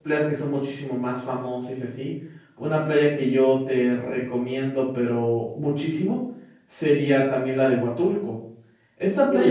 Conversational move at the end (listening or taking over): taking over